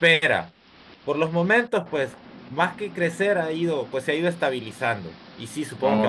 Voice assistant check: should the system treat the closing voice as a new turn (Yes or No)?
No